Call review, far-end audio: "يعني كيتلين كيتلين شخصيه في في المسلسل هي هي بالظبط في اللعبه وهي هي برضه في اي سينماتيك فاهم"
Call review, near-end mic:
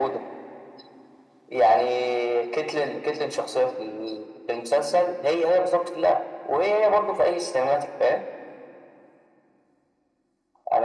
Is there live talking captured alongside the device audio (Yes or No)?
No